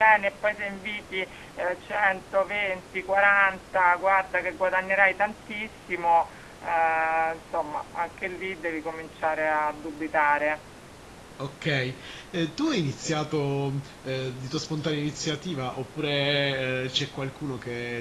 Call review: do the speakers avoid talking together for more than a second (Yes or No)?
Yes